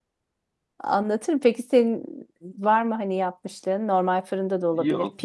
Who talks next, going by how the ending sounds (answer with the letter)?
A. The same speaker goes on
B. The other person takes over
B